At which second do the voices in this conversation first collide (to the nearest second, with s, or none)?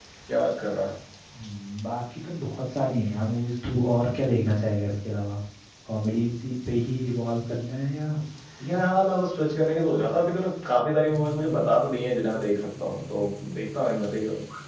none